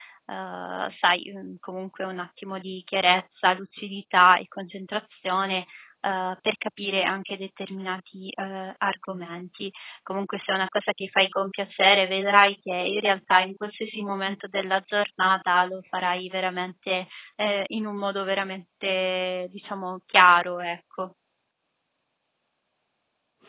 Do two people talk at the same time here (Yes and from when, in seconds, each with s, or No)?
No